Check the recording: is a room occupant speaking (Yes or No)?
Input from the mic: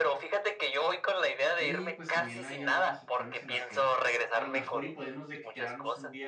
Yes